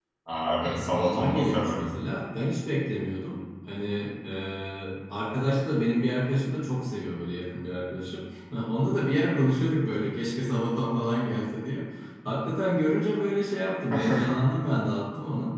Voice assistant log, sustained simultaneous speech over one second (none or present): present